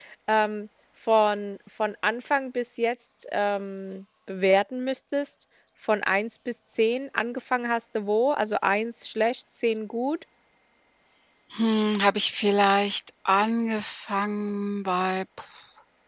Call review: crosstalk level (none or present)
none